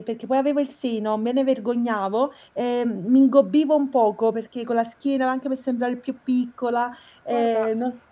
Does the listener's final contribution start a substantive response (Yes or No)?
Yes